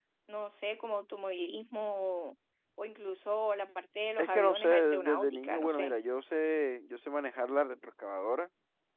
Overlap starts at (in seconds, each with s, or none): 4.2 s